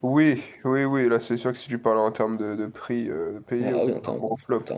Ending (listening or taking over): taking over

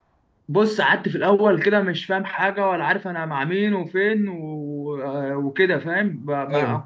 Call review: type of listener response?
listening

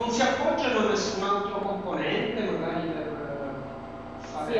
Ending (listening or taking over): taking over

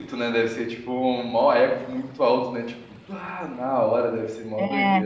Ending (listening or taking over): taking over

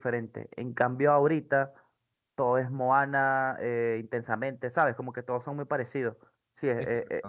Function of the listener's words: listening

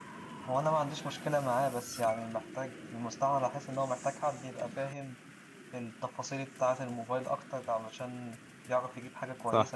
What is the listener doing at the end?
listening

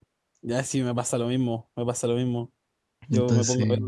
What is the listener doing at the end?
listening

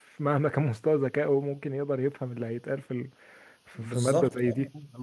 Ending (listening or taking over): taking over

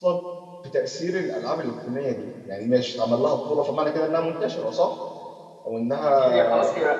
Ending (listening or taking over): taking over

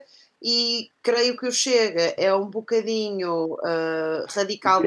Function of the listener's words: taking over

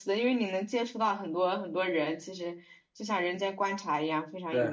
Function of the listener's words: taking over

